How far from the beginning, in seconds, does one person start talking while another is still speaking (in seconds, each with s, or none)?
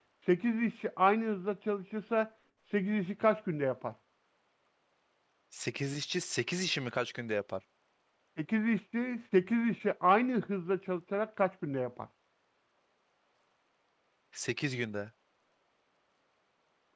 none